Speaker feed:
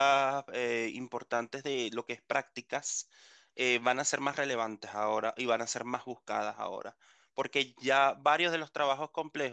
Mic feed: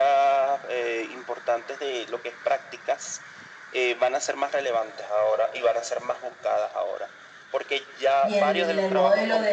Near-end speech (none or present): present